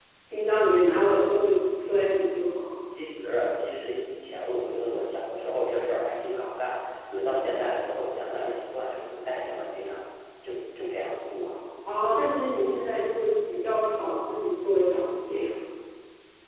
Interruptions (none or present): none